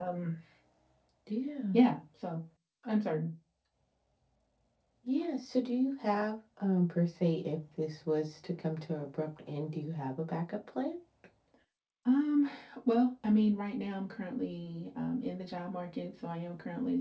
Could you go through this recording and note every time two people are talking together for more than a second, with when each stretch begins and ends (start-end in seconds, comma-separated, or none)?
none